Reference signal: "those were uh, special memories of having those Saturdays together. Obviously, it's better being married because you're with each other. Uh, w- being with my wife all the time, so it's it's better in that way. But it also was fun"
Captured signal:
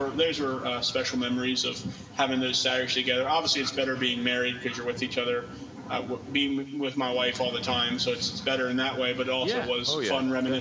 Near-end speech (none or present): present